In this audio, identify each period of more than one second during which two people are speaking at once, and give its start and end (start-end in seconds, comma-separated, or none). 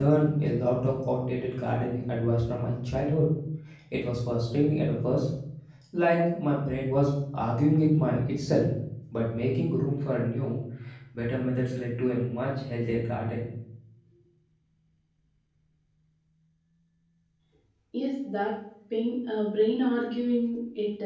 none